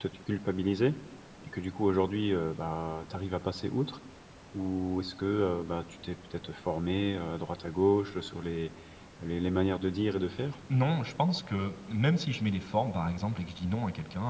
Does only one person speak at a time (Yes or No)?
Yes